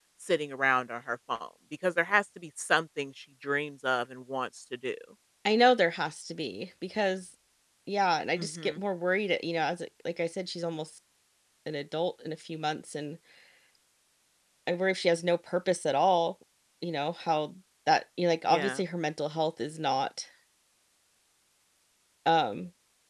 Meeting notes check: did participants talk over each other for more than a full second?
No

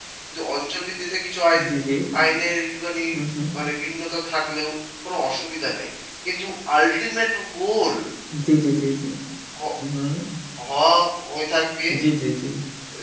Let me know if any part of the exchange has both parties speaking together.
No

